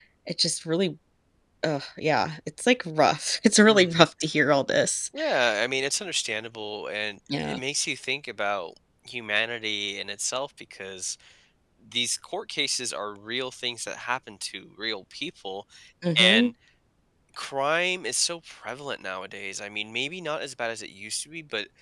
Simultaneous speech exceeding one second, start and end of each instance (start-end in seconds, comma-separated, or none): none